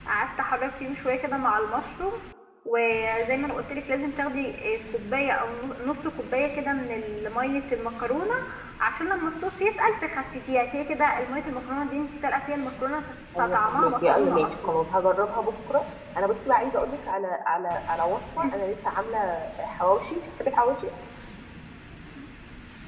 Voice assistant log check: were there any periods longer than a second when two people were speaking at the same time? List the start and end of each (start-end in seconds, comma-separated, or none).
13.4-14.8